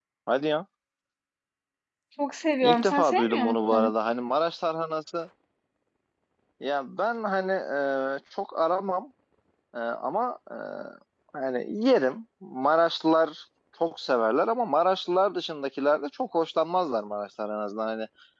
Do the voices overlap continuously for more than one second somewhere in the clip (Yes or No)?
Yes